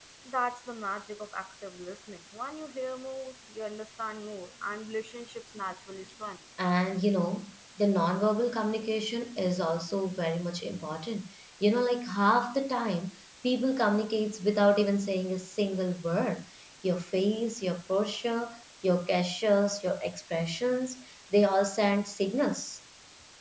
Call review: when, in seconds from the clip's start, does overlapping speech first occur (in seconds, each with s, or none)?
none